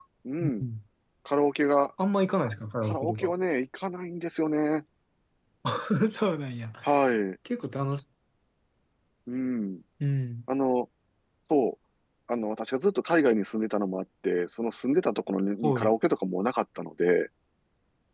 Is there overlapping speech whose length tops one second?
No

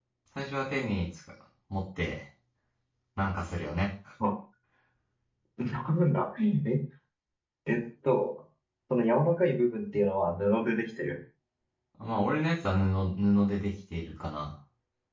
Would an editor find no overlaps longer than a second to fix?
Yes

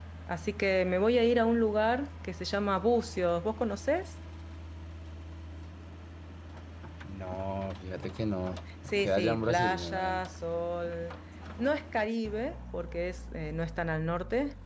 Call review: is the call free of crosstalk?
No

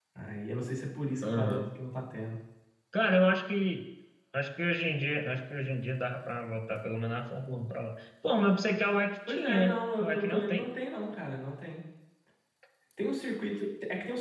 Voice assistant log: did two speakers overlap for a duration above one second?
Yes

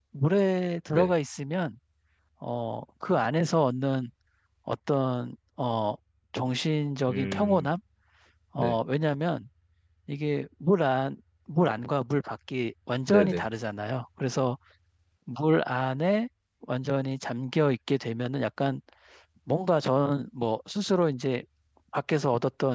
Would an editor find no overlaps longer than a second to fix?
Yes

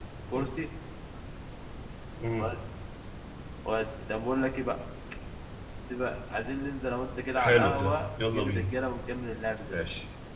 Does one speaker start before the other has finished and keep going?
Yes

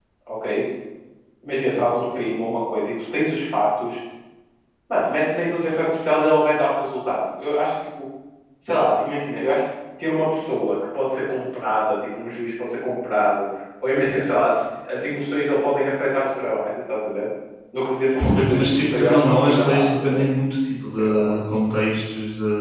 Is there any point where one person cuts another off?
Yes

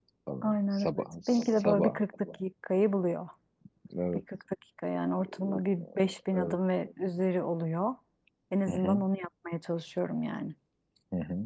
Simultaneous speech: Yes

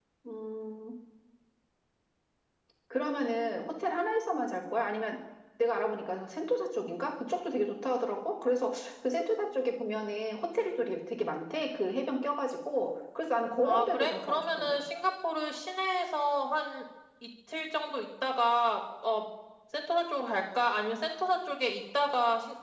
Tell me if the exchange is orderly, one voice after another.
No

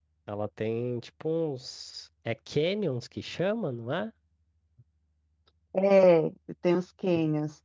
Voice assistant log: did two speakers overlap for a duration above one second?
No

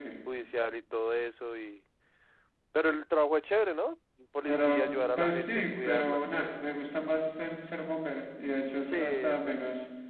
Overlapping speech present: Yes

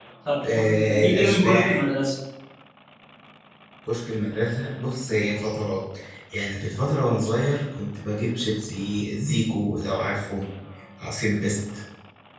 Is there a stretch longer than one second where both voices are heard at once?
Yes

